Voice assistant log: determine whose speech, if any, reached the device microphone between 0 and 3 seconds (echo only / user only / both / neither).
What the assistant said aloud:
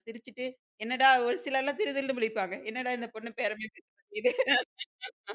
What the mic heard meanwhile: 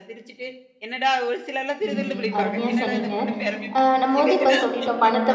both